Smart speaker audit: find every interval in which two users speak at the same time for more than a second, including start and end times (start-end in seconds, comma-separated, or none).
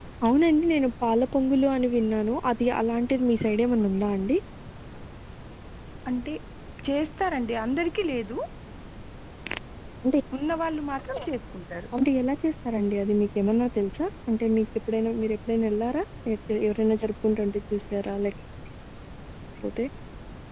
none